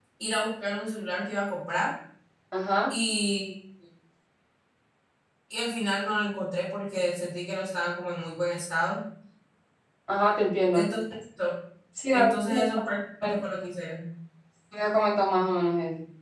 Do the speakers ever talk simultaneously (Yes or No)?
Yes